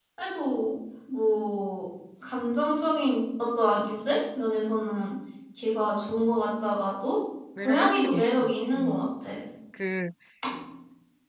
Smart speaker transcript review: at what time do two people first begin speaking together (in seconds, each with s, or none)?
7.6 s